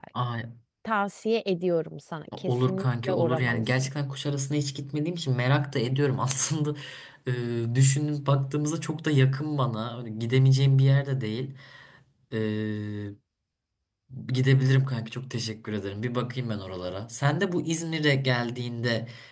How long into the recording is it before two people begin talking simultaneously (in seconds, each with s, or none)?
2.3 s